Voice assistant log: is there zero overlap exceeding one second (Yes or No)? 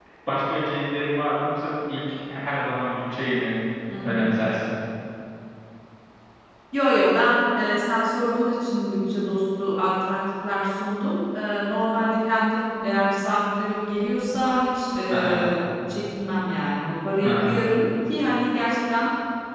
Yes